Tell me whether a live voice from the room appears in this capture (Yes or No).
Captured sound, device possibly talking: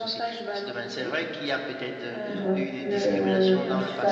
Yes